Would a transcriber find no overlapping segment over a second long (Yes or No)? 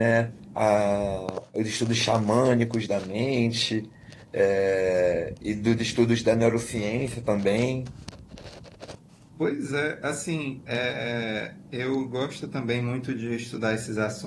Yes